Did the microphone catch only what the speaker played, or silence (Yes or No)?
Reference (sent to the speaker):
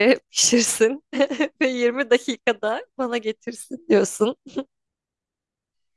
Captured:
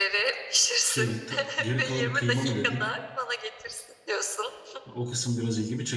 No